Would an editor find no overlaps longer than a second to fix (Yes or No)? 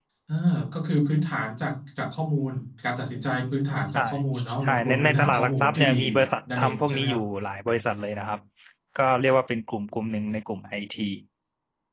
No